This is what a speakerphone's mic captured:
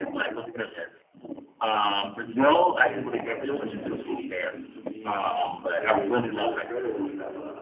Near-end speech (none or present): present